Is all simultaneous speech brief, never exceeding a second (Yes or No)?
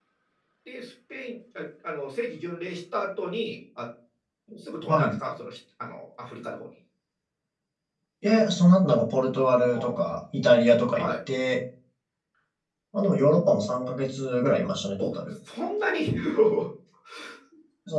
Yes